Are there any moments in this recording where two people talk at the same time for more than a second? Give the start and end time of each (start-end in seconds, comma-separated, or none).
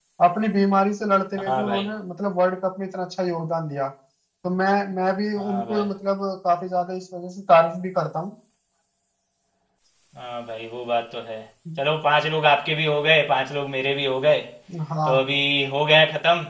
none